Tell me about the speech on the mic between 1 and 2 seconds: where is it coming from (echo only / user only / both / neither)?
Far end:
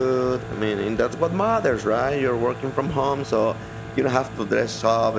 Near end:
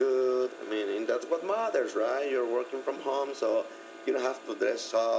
echo only